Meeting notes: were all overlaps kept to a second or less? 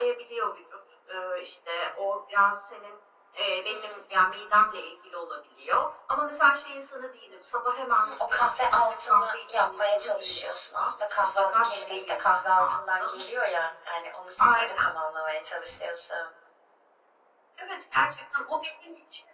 No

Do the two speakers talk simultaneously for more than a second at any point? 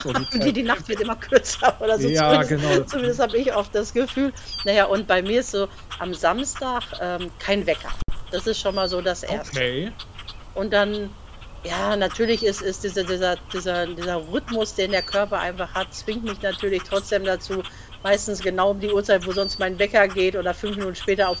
Yes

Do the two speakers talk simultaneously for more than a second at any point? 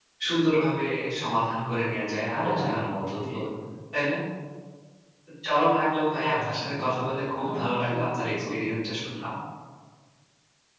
Yes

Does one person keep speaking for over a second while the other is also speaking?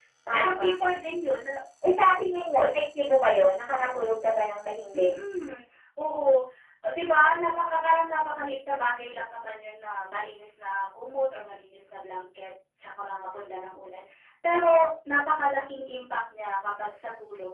No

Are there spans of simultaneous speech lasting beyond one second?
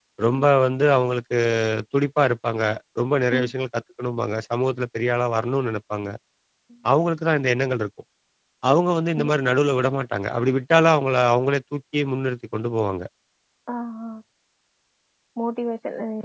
No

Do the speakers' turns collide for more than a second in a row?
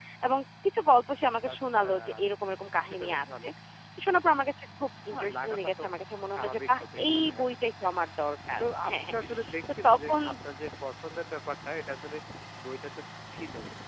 Yes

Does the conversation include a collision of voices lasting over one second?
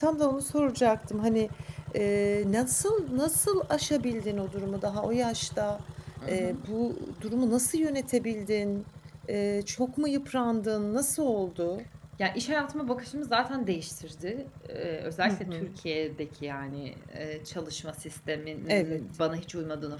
No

